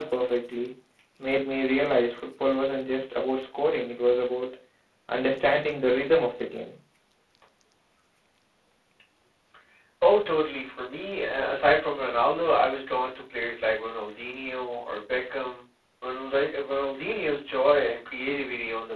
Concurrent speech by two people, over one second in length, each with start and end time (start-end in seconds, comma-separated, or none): none